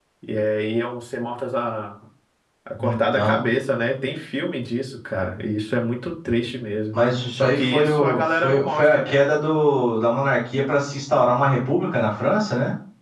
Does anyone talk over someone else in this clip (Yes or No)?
Yes